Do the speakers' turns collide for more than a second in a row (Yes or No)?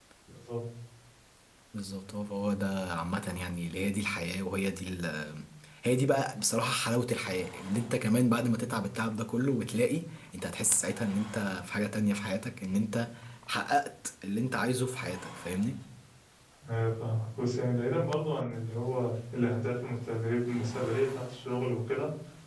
No